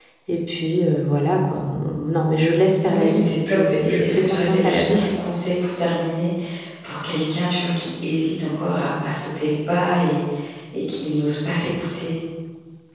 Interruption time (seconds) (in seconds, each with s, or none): 2.9 s